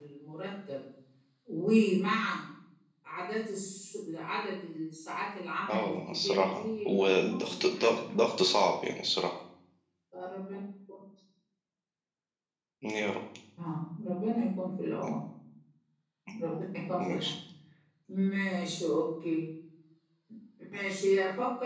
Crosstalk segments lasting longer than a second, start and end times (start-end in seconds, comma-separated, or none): 5.7-8.0